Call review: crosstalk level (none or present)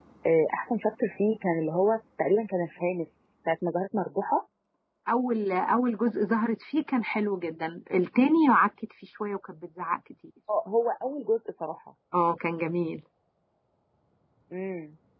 none